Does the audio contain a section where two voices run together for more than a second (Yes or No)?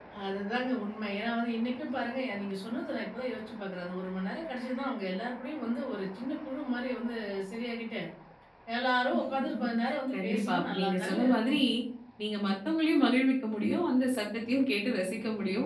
Yes